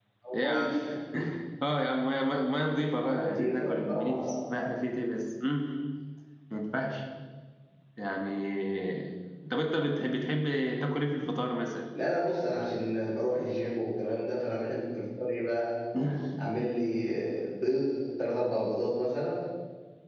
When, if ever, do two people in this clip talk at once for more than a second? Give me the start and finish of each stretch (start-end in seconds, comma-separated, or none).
3.0-4.4